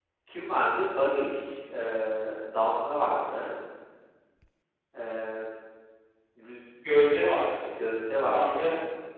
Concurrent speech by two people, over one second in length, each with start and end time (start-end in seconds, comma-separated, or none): none